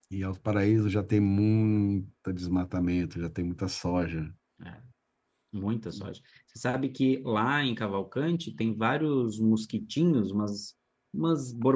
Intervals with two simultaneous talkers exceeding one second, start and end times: none

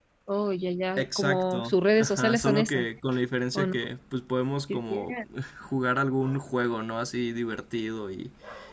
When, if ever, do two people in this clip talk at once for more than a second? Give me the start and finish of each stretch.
1.0-2.9

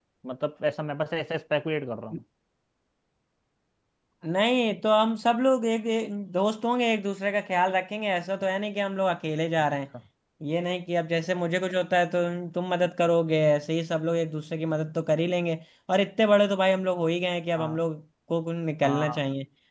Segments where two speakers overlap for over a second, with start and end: none

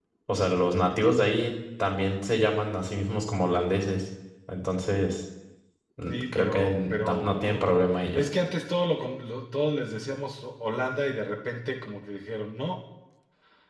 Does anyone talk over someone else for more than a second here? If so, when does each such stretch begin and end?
6.1-7.7

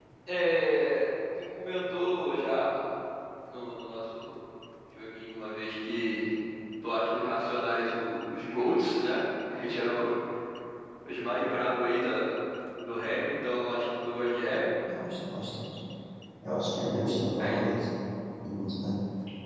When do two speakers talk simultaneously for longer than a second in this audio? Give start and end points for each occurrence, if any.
none

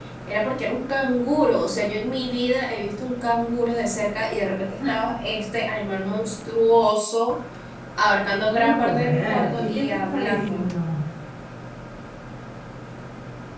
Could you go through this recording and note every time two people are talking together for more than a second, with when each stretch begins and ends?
8.5-10.6

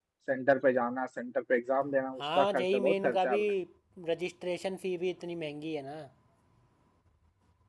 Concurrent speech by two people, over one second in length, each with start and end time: 2.2-3.4

